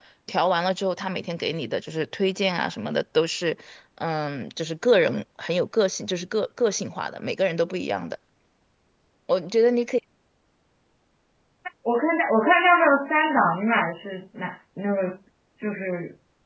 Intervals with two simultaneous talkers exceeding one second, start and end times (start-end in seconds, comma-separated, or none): none